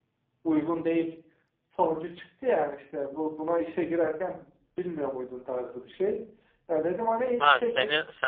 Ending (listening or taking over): taking over